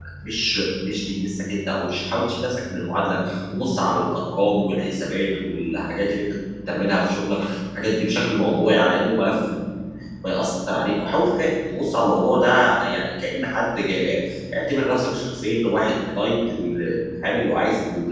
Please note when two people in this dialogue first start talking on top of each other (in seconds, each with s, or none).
none